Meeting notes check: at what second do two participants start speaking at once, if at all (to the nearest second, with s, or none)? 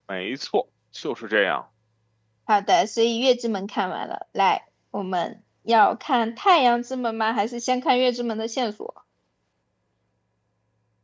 none